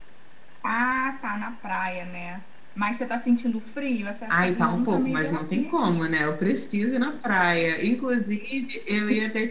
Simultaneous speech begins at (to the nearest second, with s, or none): 4 s